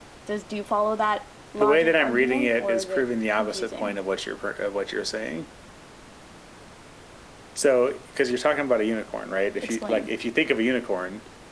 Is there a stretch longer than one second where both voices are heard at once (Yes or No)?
Yes